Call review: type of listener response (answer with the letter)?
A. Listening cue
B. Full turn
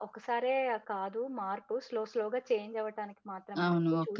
B